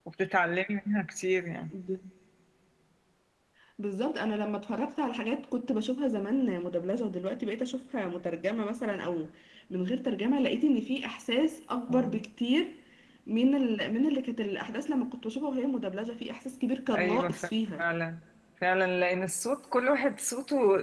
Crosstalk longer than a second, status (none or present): none